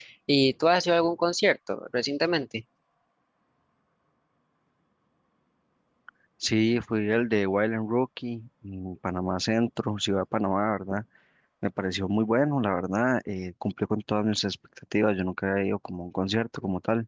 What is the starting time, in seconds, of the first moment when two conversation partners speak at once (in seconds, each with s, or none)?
none